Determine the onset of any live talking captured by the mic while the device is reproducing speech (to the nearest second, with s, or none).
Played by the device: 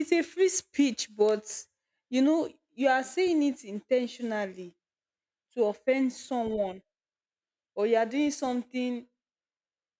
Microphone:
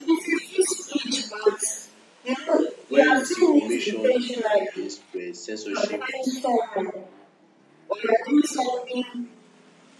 3 s